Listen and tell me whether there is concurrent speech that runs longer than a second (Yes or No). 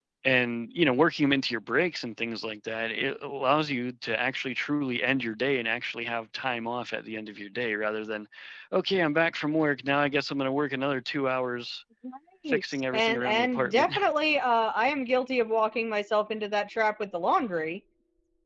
Yes